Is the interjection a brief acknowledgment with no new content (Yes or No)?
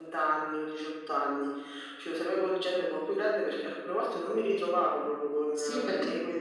No